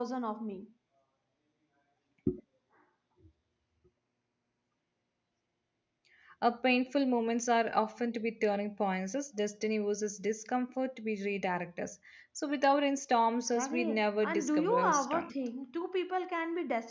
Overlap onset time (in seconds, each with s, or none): 13.6 s